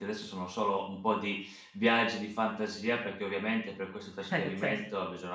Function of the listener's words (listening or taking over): listening